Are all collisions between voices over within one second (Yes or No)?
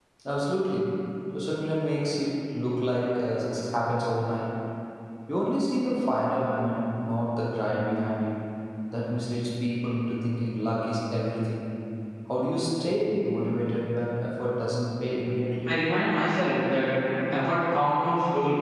Yes